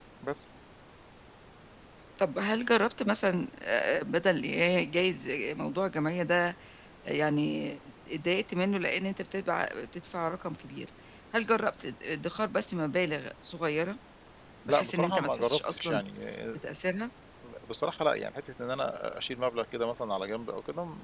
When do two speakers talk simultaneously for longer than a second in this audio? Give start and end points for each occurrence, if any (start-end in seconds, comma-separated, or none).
14.7-16.0